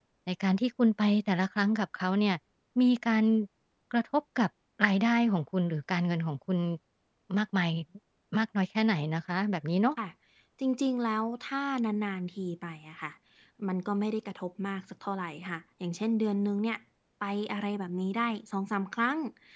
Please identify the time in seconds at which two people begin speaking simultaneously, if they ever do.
none

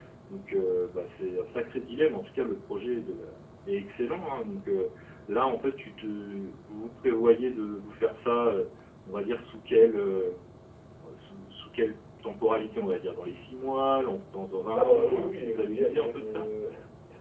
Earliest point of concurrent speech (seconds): 14.8 s

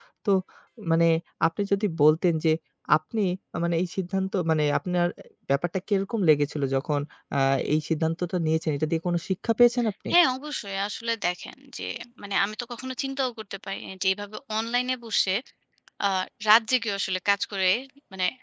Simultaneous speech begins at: none

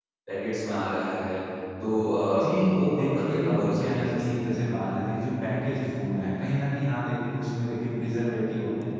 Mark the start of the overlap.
2.4 s

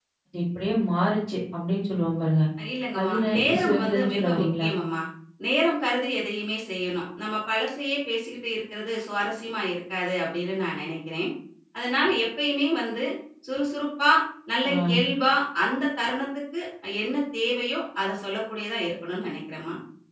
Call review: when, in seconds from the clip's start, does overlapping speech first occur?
3.0 s

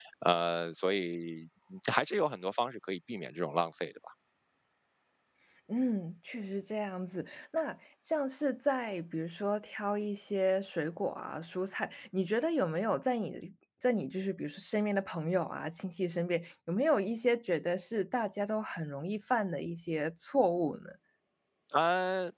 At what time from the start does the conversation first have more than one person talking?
none

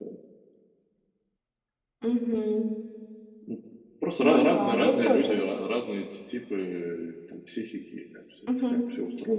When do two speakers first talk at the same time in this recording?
4.2 s

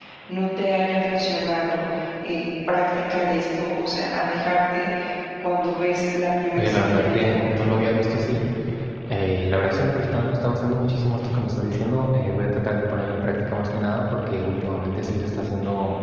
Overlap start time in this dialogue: 6.6 s

